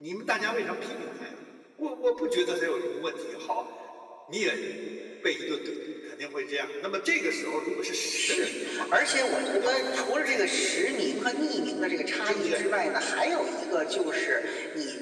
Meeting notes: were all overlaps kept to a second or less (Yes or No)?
No